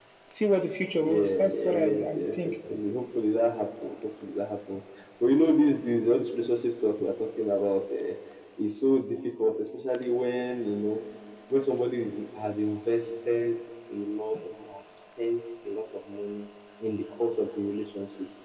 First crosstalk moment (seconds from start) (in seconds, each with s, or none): 1.0 s